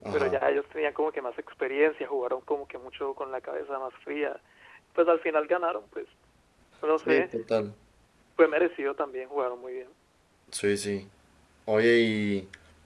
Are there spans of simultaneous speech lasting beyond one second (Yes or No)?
No